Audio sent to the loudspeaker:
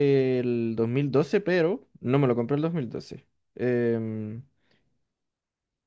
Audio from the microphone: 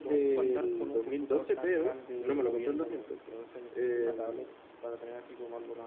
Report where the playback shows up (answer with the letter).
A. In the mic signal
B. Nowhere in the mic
A